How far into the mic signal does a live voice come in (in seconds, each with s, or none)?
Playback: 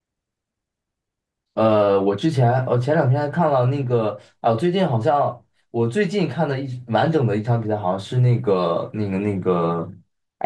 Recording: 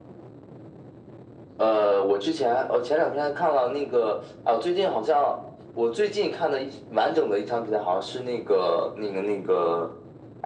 none